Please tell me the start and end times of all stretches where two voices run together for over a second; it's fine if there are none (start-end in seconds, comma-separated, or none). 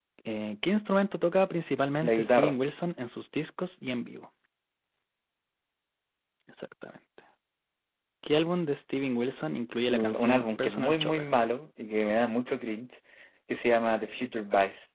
9.9-11.3